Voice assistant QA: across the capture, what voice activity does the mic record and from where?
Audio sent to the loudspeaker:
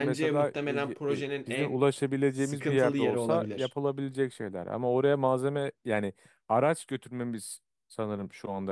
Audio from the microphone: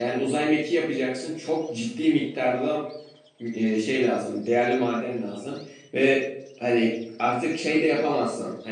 user only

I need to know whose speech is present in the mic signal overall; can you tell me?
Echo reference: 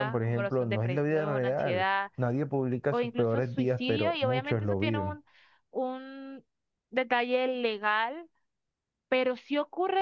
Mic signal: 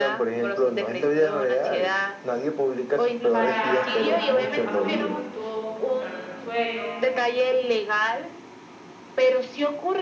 both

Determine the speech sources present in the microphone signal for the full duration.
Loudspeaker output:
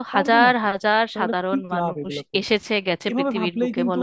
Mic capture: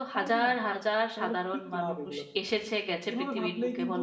echo only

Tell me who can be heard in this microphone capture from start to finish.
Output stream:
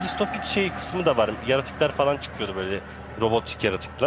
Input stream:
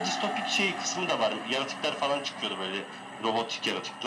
echo only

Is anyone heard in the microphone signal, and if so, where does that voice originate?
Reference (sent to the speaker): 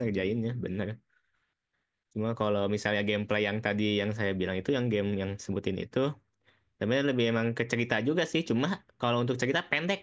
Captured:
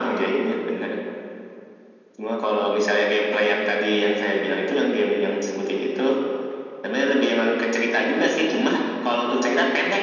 echo only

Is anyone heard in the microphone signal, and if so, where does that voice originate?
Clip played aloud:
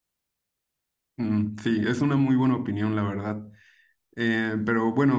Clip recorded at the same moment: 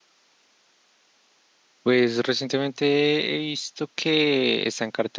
user only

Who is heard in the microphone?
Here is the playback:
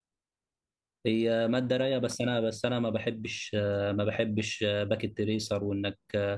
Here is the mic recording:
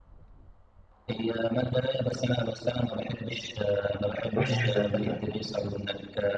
both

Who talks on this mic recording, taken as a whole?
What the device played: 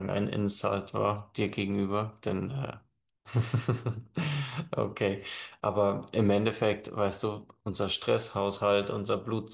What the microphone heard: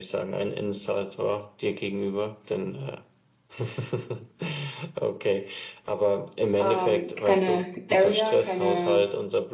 both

